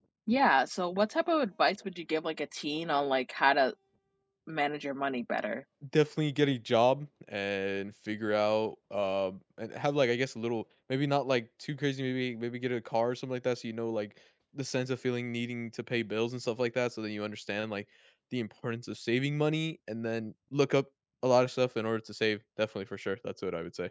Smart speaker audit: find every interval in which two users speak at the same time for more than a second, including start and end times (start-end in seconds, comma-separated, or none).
none